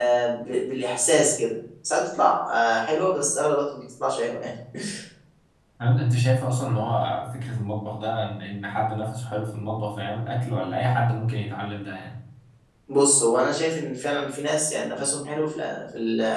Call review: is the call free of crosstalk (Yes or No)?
Yes